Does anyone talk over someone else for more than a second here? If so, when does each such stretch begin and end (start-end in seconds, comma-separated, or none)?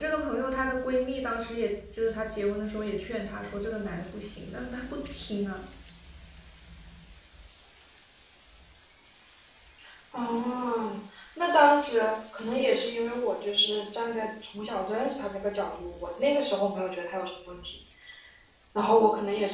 none